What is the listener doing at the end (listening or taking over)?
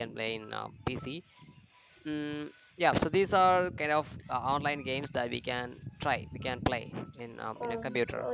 taking over